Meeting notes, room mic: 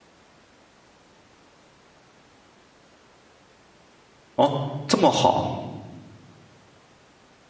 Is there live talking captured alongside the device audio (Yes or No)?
Yes